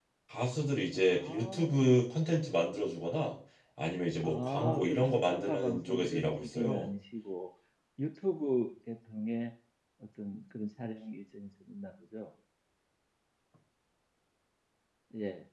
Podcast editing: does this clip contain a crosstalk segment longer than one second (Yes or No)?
Yes